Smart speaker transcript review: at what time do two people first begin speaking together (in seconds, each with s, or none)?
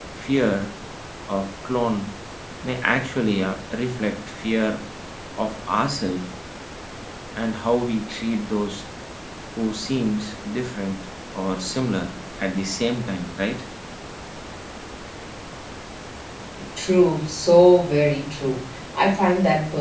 none